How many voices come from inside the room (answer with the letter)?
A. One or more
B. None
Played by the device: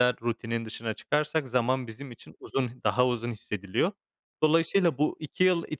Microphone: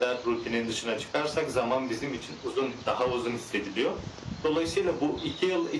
B